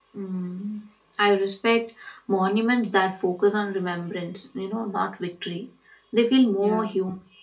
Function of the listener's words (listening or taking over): listening